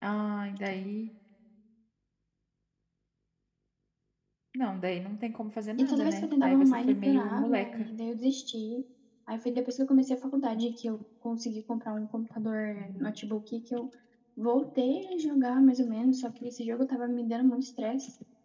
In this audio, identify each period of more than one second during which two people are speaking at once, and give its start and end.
5.8-7.9

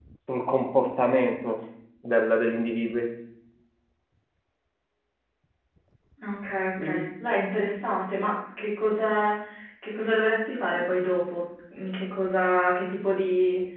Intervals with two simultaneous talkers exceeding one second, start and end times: none

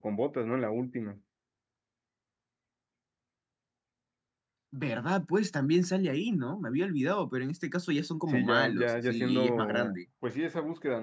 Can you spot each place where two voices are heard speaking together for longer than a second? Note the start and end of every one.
8.3-10.0

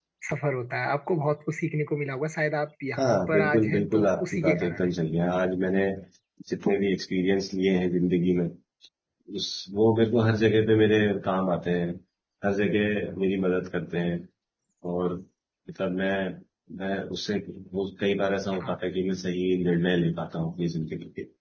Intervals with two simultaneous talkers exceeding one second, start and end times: 3.0-5.0

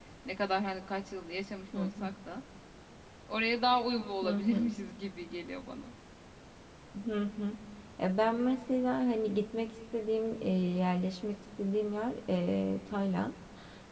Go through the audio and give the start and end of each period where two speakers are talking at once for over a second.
none

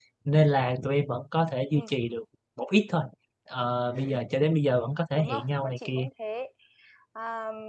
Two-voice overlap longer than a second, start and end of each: 4.8-6.0

